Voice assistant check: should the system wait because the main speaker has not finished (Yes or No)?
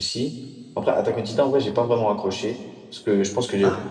Yes